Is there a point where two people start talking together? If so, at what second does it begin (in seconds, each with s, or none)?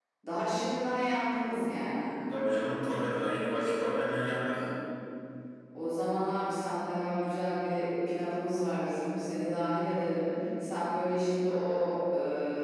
none